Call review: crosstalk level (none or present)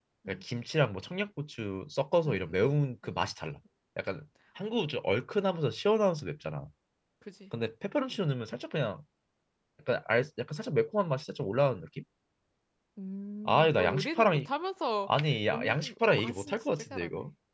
present